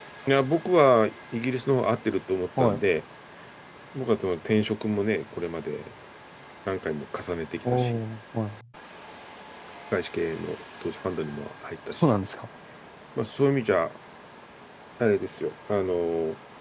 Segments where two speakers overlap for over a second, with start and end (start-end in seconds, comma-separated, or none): none